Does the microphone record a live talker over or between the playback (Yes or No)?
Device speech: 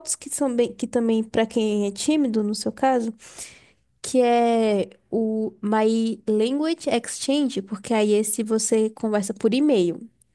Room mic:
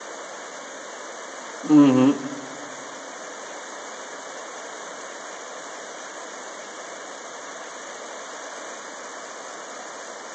Yes